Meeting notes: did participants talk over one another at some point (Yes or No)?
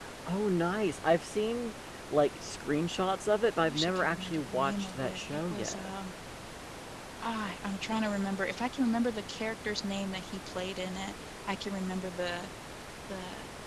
Yes